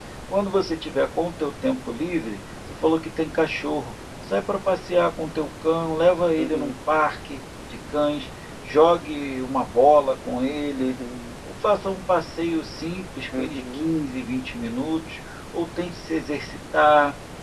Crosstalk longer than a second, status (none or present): none